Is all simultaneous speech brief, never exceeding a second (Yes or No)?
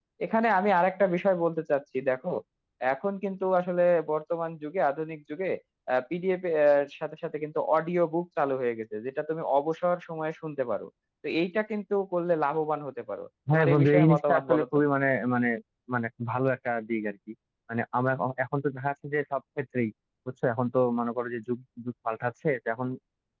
No